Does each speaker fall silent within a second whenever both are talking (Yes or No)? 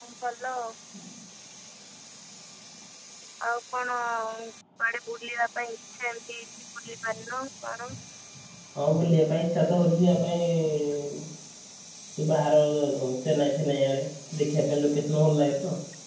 Yes